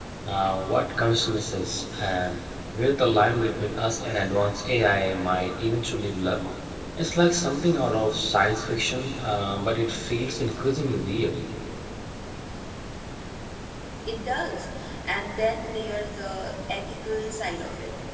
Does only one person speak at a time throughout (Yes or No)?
Yes